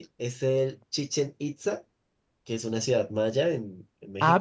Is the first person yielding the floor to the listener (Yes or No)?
Yes